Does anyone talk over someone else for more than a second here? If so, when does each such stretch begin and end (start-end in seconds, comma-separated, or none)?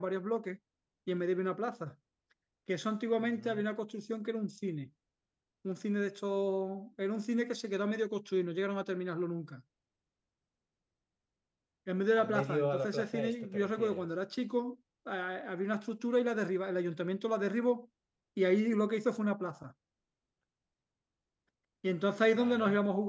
12.2-14.0